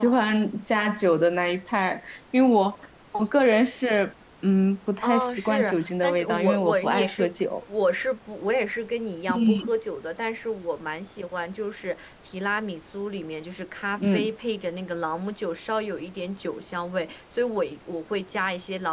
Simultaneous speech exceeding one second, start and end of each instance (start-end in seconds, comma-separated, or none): 5.0-7.6